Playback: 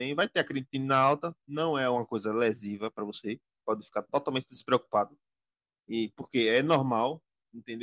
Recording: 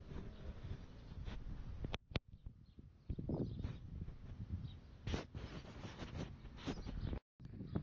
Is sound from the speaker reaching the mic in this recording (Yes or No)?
No